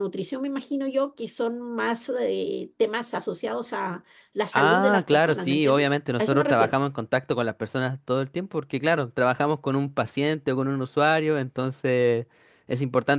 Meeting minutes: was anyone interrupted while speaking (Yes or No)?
Yes